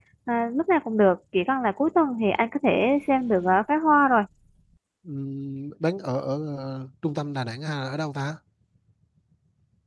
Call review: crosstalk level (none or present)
none